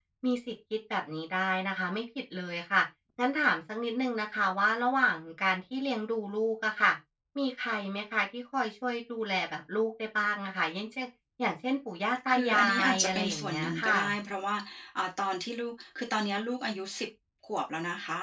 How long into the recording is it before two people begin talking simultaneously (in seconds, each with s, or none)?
12.3 s